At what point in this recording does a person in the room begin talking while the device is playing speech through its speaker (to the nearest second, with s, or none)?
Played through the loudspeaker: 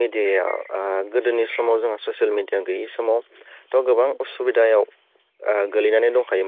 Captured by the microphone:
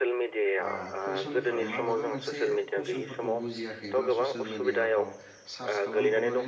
1 s